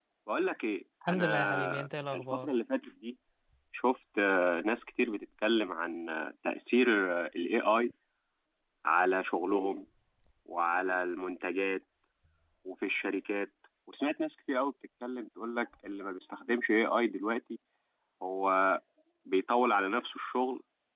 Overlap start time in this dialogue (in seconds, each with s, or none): 1.1 s